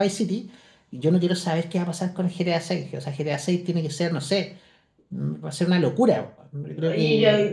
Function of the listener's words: taking over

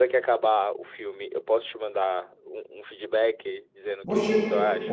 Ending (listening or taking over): taking over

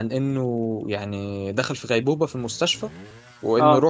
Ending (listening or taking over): listening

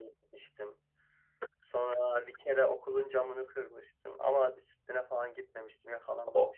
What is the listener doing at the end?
taking over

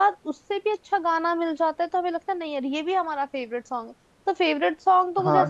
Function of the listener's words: taking over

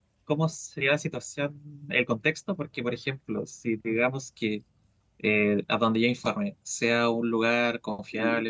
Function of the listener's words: listening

